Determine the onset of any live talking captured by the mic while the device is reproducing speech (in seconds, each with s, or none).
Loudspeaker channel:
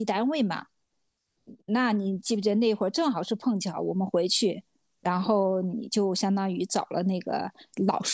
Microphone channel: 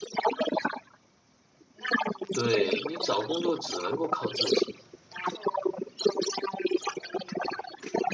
2.3 s